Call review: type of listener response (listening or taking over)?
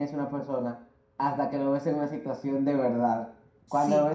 listening